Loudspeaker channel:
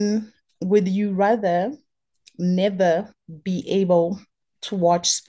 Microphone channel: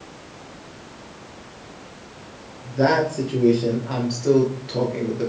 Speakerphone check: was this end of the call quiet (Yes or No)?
No